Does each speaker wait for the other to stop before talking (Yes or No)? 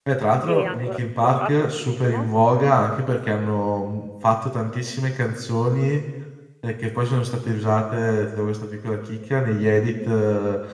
No